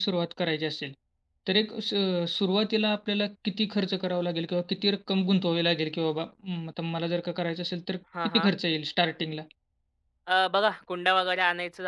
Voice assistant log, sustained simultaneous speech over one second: none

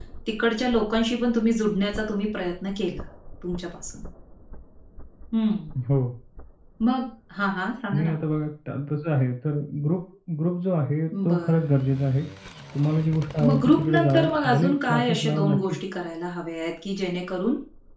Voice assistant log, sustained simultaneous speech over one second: present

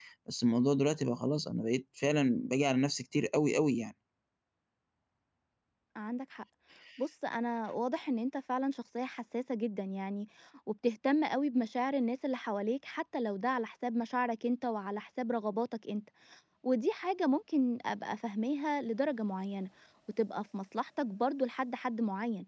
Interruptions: none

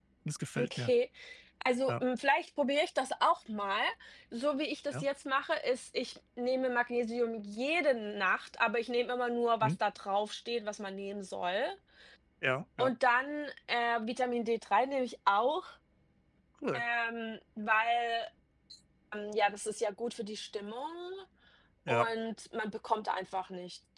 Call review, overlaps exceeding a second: none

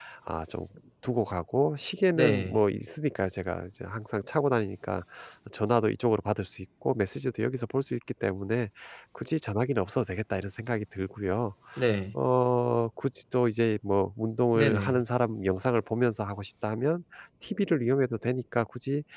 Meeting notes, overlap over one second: none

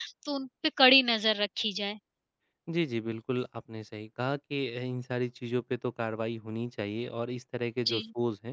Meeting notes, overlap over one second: none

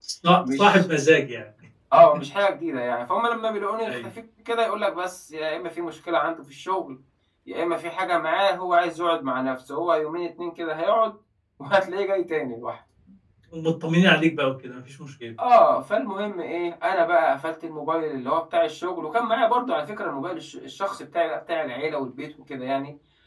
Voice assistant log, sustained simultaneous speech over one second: none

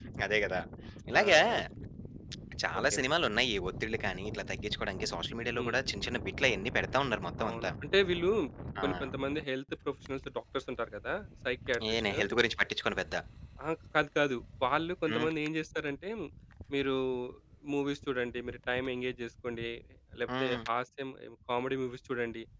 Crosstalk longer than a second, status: none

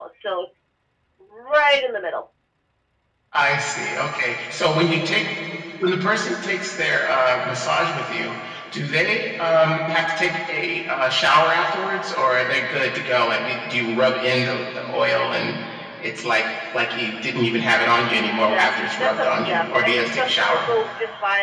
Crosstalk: present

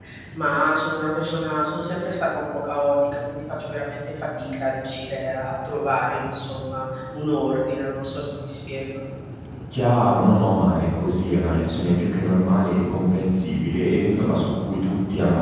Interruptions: none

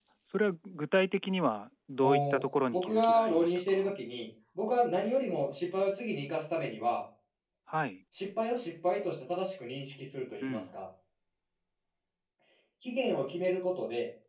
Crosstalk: present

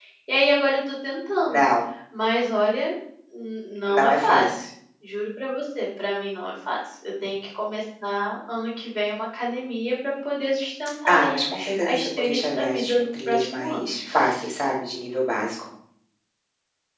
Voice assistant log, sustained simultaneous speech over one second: present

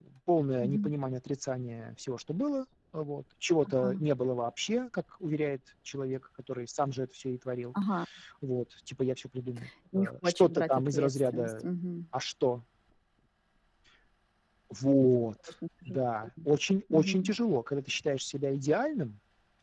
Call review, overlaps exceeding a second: present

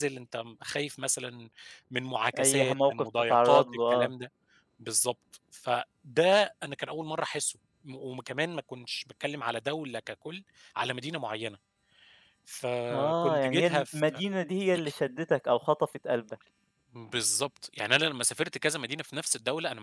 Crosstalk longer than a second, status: present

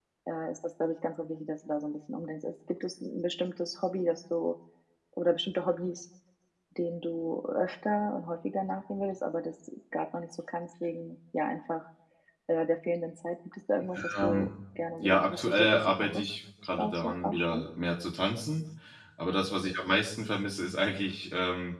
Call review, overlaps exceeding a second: present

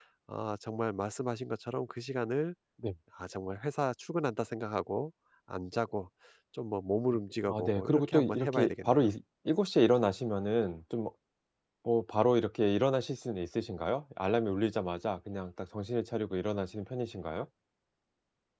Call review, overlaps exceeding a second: present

